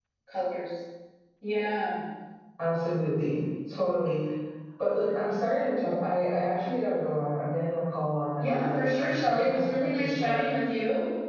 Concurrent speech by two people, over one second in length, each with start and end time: 8.4-10.4

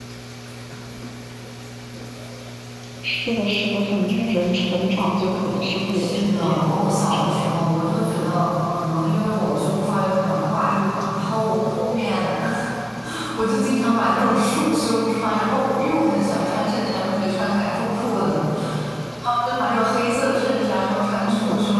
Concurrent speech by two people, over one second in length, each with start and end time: 5.9-7.7

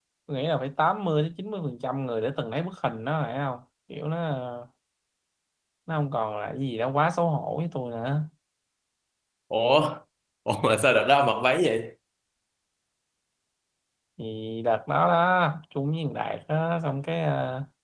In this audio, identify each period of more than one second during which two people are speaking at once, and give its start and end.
none

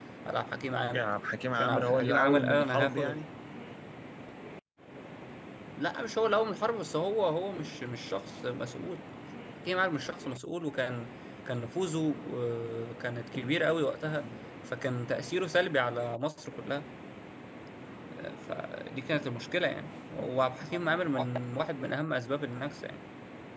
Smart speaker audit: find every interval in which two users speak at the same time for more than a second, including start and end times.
1.6-3.2

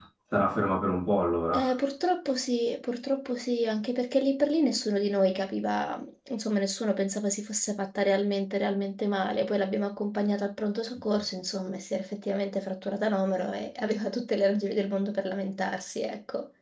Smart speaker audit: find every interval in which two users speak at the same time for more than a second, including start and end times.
none

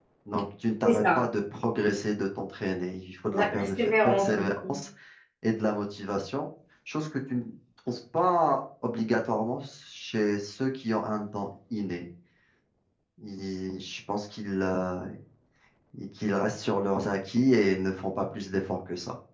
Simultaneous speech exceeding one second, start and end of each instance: 3.3-4.8

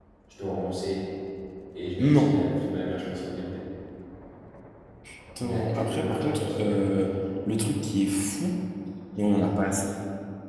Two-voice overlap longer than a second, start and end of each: 5.4-7.1

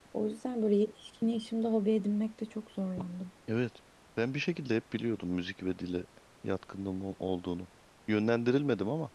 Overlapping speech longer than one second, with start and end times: none

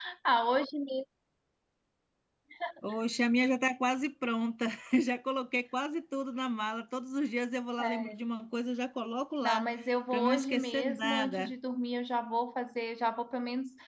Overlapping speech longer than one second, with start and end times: 10.1-11.5

